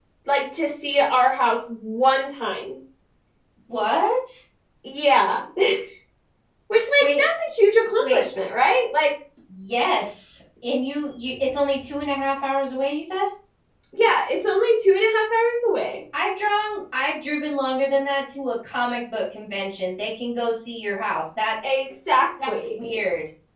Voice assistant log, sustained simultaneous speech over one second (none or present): none